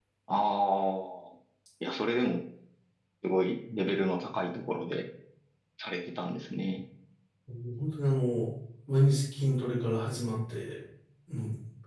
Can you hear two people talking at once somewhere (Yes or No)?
No